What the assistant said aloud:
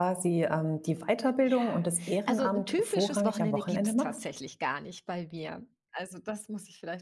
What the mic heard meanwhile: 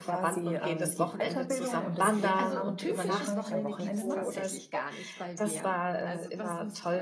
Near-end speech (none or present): present